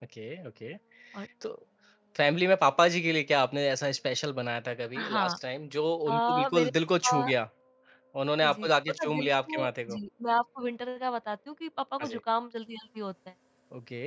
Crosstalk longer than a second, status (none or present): present